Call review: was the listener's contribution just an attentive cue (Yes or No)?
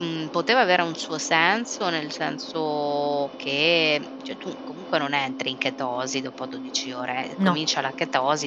Yes